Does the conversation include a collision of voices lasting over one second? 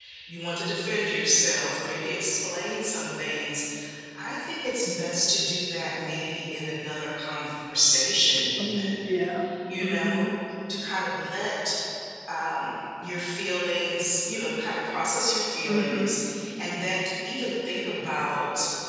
No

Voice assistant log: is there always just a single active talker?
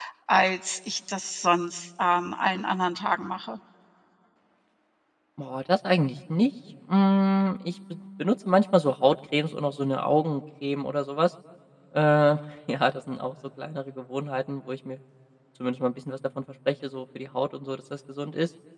Yes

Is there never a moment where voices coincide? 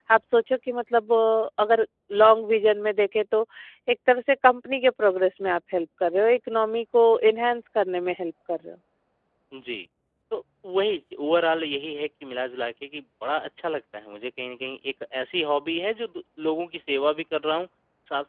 Yes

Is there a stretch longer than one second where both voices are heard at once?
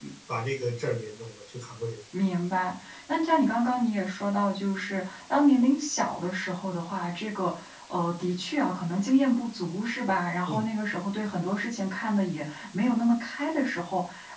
No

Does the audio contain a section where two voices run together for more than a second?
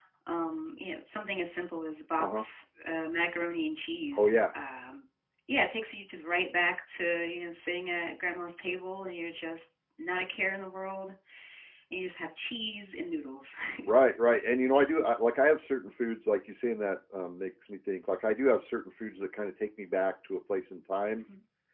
No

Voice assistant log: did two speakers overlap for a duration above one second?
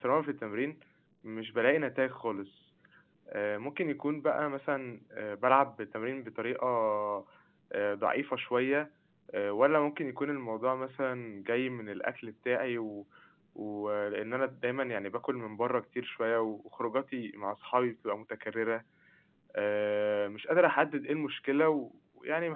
No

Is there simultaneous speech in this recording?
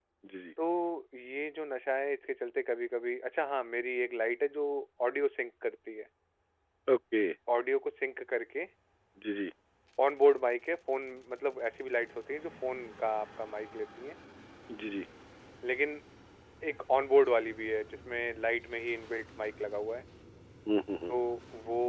No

